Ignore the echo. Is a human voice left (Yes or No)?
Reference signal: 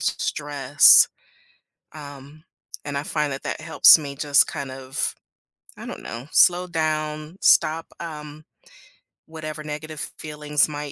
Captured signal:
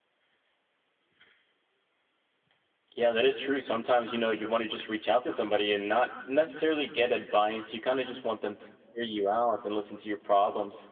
Yes